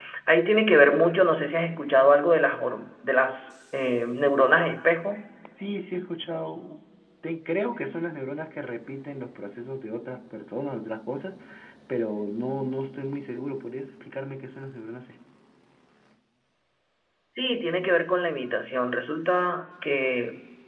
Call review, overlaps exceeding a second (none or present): none